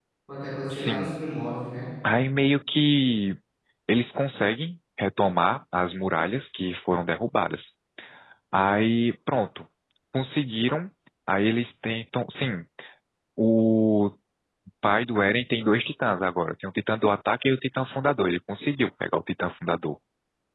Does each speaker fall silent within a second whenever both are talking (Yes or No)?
Yes